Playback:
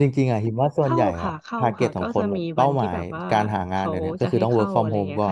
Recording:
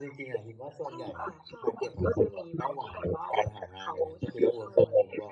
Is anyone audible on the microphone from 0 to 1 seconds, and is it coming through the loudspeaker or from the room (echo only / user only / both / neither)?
echo only